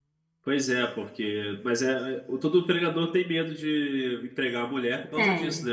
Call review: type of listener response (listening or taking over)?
listening